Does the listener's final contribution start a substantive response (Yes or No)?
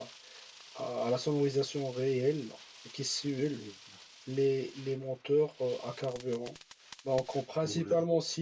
No